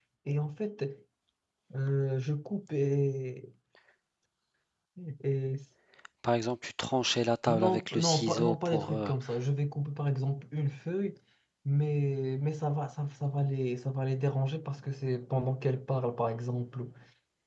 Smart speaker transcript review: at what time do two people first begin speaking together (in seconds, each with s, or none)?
7.5 s